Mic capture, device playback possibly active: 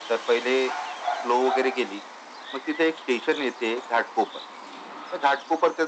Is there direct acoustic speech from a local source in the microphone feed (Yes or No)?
No